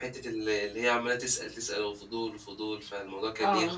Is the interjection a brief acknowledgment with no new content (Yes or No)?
No